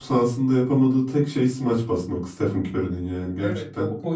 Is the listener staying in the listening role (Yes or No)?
No